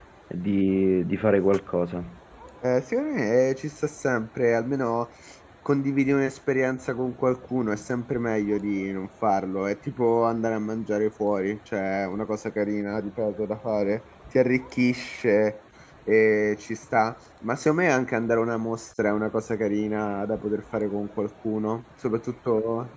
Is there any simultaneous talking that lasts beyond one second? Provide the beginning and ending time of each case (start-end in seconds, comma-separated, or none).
none